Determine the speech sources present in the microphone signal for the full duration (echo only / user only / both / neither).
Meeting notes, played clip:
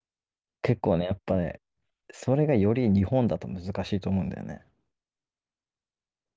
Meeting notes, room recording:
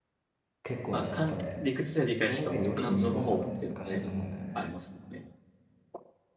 both